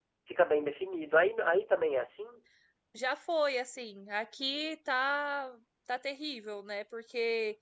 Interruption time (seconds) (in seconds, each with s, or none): none